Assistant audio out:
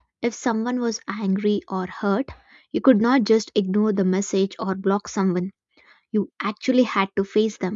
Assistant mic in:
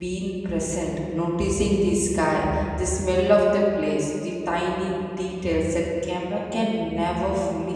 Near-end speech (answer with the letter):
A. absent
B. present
B